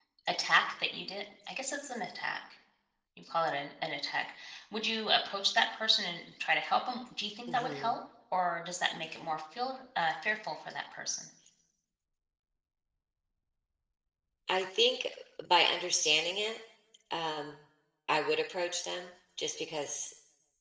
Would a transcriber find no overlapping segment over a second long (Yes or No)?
Yes